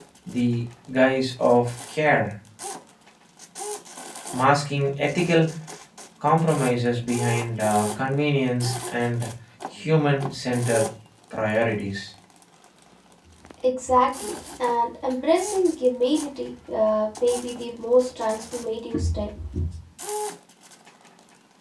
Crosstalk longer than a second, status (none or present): none